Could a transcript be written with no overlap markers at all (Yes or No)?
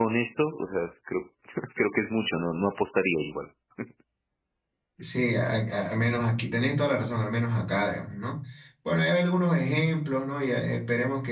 Yes